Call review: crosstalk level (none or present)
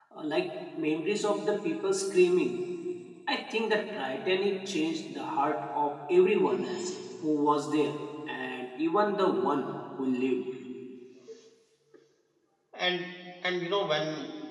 none